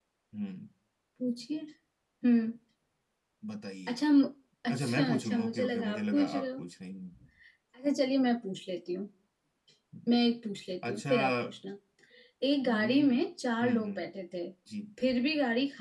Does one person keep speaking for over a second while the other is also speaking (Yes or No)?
Yes